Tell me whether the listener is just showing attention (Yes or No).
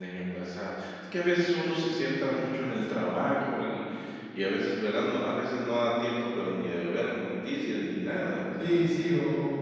No